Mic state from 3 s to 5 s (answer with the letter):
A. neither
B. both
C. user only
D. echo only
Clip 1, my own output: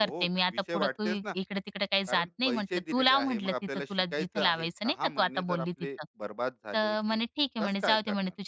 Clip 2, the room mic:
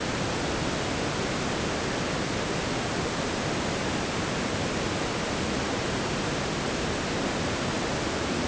A